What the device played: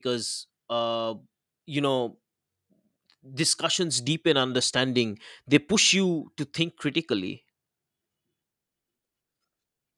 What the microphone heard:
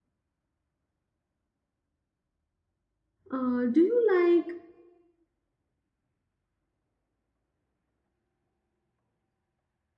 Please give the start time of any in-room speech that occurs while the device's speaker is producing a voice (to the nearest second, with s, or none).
3 s